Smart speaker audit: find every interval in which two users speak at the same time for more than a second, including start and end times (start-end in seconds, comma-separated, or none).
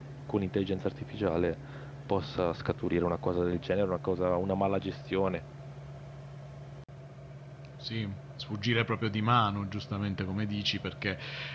none